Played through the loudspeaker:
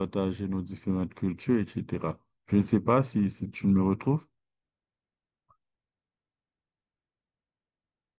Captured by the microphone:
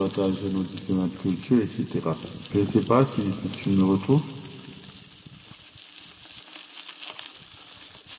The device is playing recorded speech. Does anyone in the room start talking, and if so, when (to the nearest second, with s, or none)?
none